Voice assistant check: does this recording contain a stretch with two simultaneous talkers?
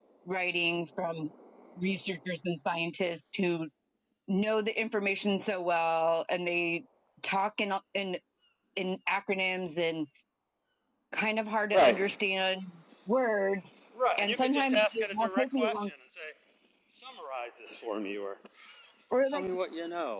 Yes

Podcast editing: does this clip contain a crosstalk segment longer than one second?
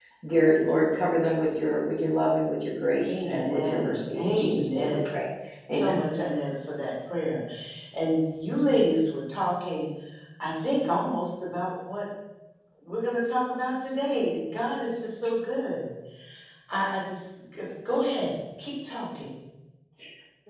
Yes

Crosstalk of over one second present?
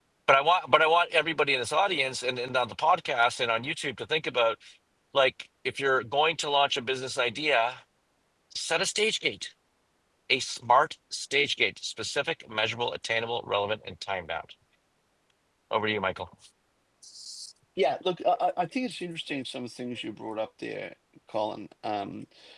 No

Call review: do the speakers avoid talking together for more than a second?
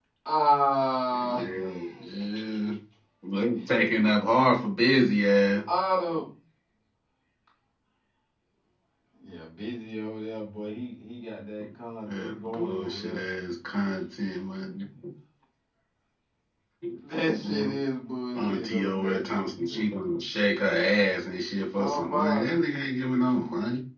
No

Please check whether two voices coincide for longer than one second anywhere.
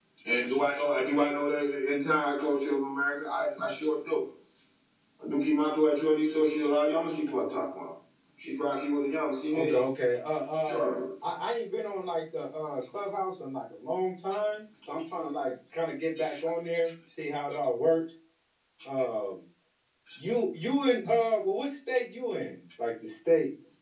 No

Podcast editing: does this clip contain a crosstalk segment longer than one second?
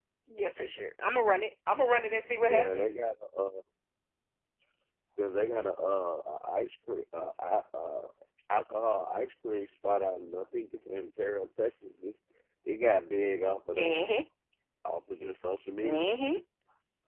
No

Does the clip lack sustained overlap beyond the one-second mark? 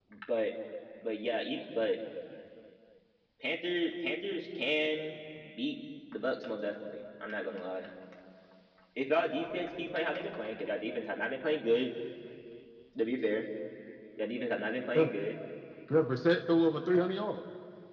Yes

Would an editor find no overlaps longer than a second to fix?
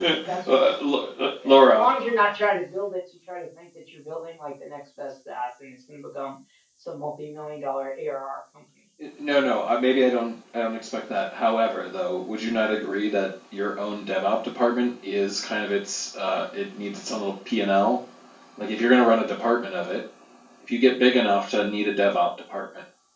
Yes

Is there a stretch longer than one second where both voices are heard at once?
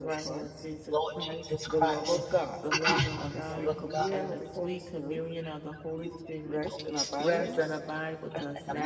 Yes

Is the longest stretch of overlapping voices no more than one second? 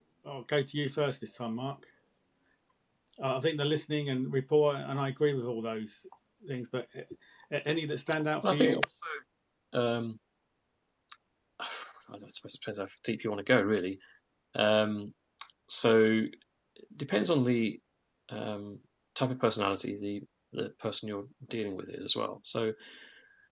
Yes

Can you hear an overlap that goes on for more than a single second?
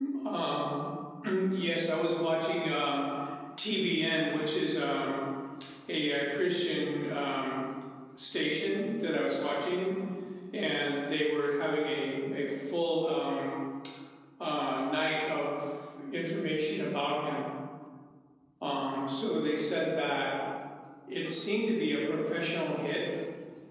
No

